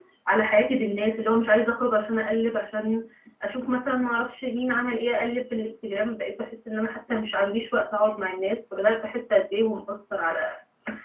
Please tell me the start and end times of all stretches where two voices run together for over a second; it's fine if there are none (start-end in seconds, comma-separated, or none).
none